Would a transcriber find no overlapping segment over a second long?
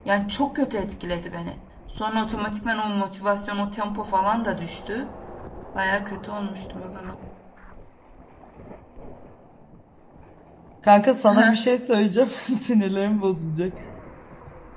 Yes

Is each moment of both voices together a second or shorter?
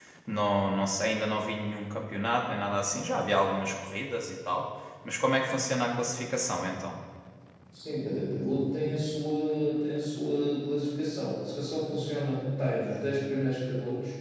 Yes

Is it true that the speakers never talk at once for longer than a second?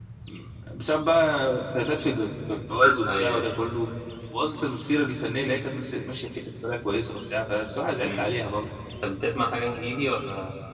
Yes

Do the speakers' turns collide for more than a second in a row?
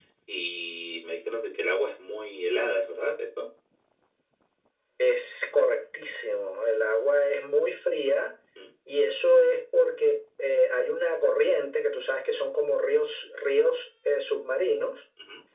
No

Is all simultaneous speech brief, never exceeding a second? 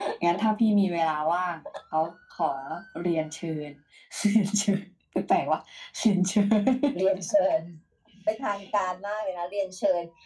Yes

